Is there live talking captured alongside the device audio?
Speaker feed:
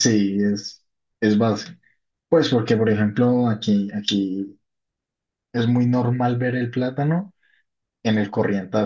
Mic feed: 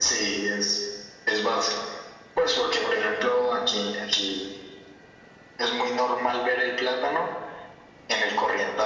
No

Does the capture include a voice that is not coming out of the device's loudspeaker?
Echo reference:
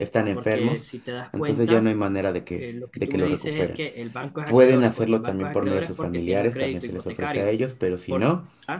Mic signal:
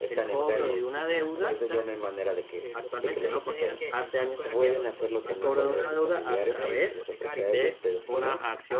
Yes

